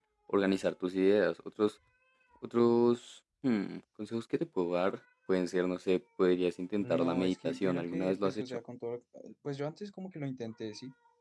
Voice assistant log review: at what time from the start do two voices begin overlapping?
6.8 s

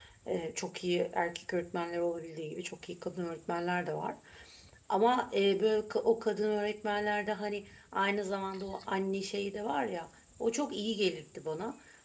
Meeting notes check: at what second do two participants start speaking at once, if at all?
none

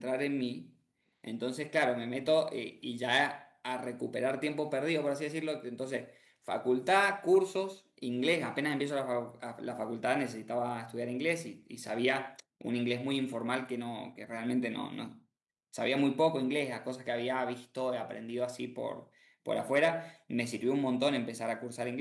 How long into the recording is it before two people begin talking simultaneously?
none

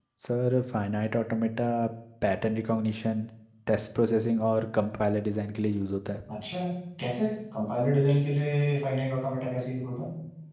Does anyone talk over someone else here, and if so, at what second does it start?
none

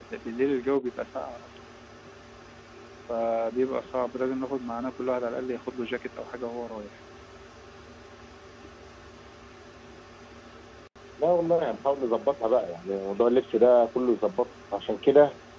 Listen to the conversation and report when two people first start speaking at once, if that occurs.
none

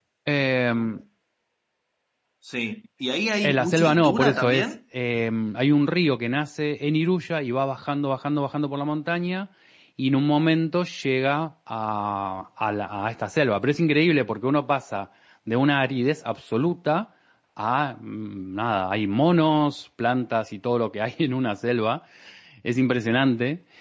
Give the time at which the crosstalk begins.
3.4 s

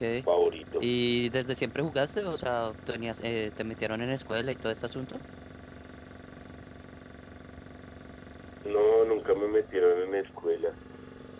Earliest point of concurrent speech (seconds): none

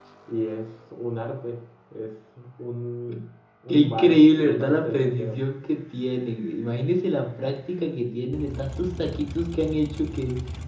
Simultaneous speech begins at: 3.7 s

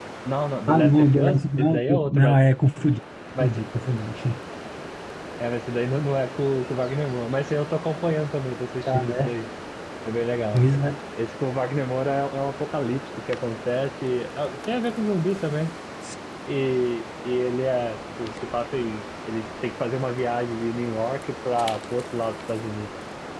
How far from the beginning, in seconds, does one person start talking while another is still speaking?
0.7 s

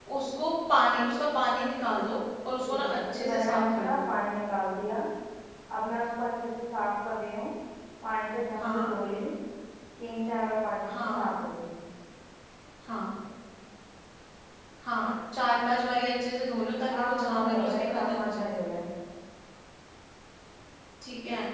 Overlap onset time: 2.7 s

